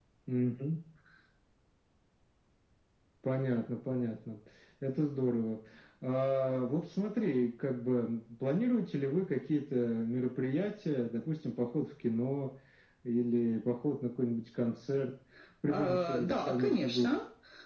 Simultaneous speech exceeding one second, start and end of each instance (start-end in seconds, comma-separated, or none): 15.7-17.1